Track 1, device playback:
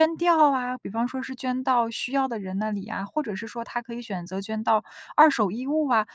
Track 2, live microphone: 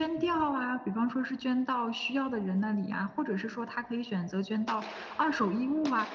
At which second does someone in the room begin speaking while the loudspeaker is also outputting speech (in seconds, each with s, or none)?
none